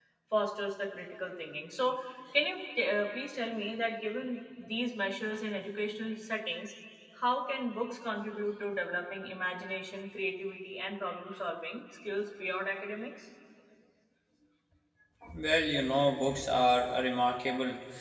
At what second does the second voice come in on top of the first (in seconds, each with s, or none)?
none